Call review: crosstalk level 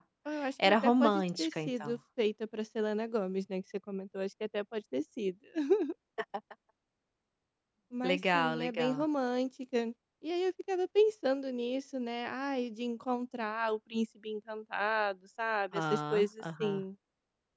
present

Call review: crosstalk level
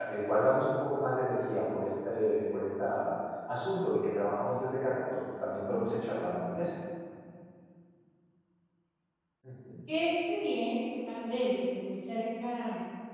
none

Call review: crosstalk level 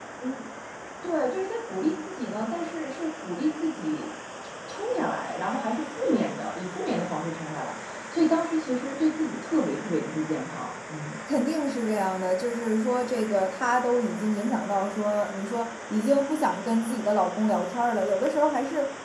none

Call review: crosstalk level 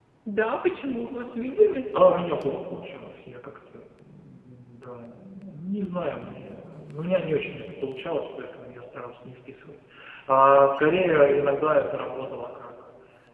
none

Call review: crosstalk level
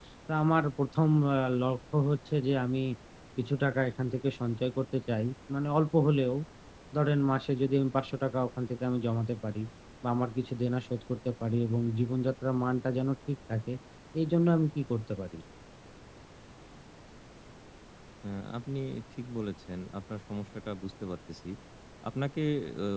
none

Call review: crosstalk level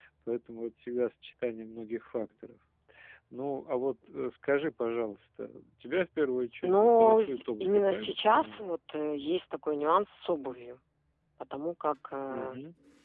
present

